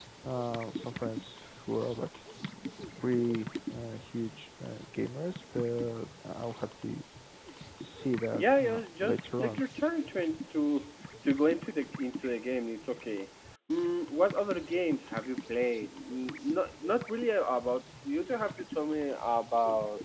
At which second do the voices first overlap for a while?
8.4 s

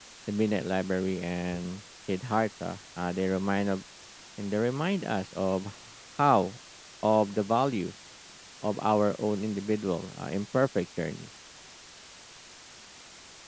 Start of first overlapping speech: none

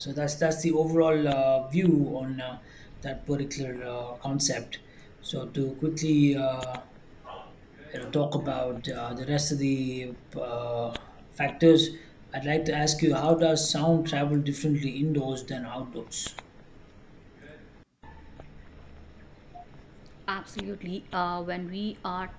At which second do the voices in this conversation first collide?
none

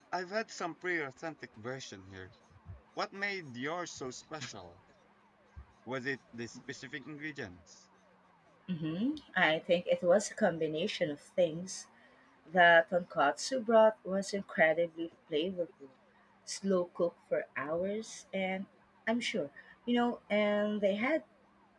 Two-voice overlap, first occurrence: none

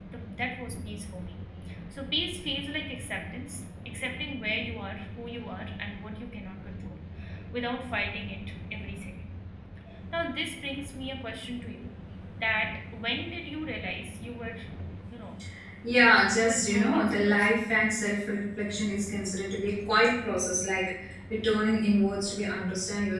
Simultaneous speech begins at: 16.3 s

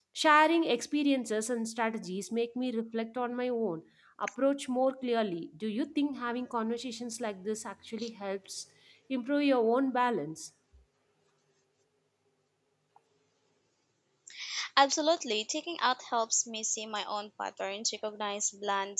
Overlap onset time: none

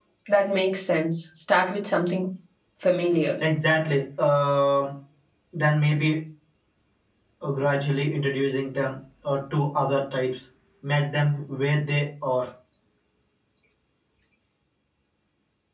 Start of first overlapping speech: none

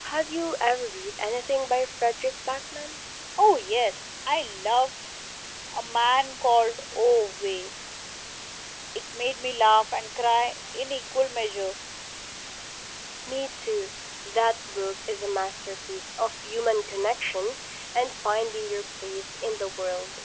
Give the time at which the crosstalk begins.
none

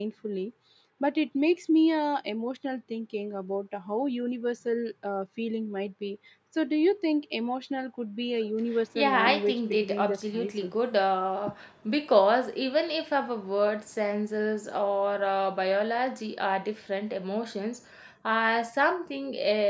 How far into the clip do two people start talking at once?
9.0 s

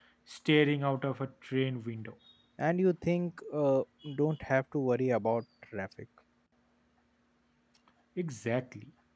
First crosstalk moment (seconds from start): none

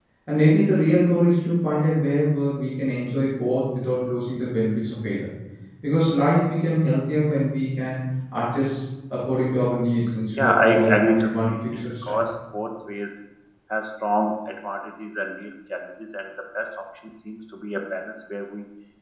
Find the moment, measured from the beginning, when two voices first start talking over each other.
10.4 s

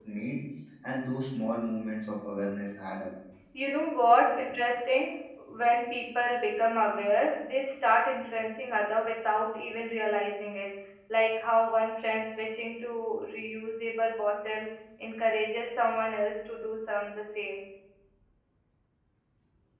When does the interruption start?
none

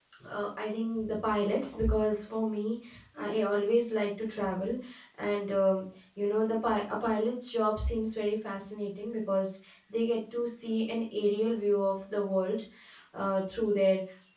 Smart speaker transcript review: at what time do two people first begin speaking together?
none

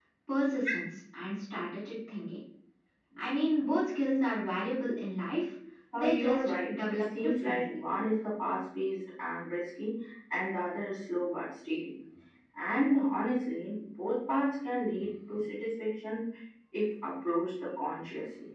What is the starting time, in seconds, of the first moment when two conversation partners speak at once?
6.0 s

